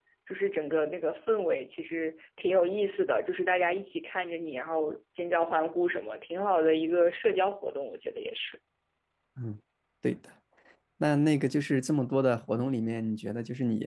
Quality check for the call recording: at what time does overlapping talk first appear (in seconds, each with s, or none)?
none